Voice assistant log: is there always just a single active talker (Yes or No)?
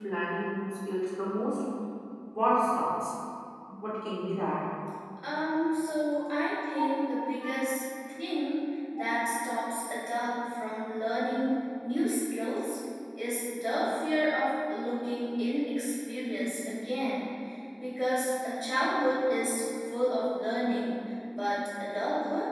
Yes